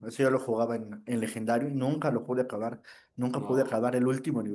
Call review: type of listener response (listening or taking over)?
listening